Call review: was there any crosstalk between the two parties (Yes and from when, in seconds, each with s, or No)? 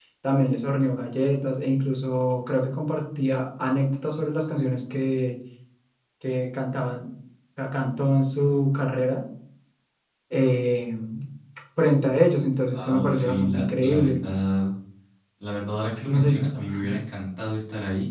Yes, from 12.7 s